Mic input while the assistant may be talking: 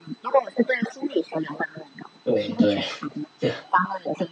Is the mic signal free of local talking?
No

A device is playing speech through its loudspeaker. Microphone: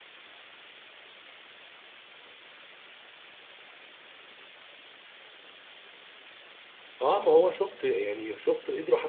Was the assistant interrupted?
Yes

